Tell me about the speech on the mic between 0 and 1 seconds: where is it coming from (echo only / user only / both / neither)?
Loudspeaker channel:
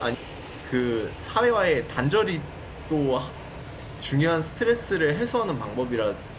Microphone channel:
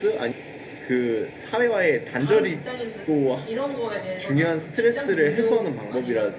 echo only